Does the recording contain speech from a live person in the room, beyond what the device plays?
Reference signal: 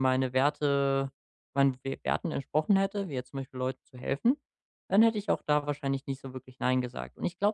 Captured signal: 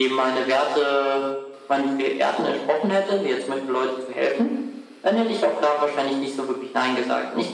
No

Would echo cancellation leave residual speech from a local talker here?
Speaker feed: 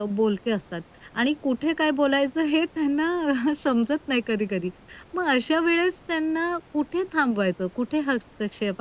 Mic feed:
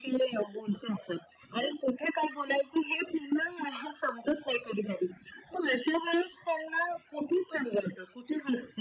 No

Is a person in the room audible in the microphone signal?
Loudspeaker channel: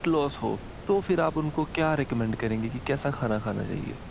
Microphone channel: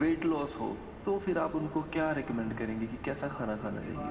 Yes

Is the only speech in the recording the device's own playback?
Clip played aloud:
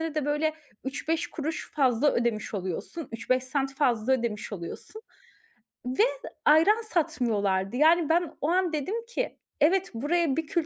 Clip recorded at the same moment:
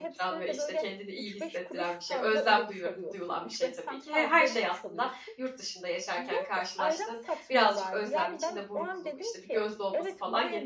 No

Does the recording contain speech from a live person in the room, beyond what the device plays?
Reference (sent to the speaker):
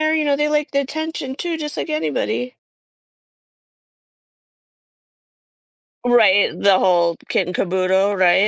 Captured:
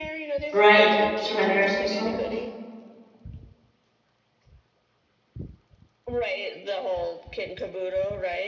Yes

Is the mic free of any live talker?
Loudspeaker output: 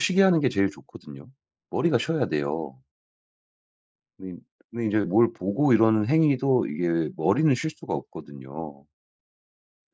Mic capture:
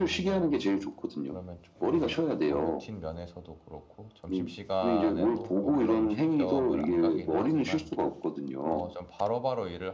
No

